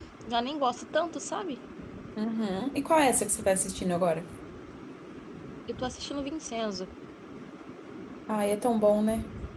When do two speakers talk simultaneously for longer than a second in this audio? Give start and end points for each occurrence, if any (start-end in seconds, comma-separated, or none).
none